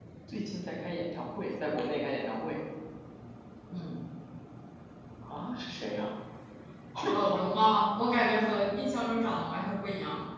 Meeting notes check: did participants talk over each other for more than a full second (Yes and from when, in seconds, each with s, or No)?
No